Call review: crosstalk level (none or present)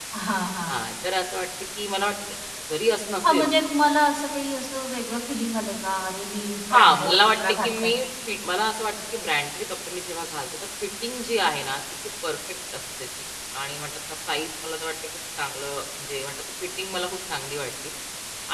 present